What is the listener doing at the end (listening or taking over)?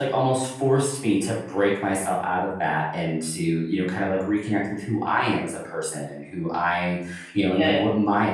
listening